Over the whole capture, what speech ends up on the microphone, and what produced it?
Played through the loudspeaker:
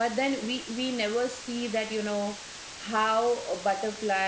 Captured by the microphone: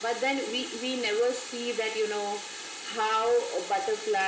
echo only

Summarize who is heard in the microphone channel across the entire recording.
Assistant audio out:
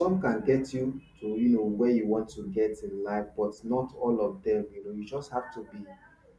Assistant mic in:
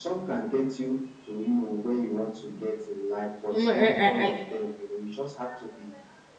both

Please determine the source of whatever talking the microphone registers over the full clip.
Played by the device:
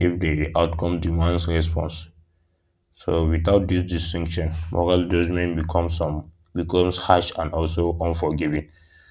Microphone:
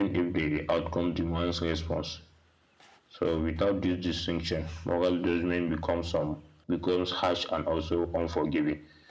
echo only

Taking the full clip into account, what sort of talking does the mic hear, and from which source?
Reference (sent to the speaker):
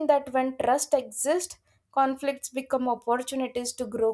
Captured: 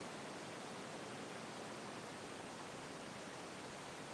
neither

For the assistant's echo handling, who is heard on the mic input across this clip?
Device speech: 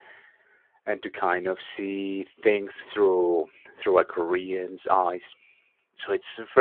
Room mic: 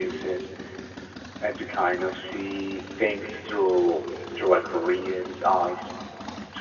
echo only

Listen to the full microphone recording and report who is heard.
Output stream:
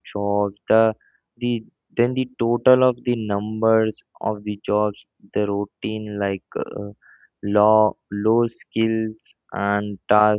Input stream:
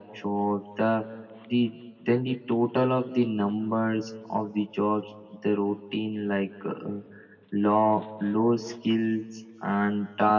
echo only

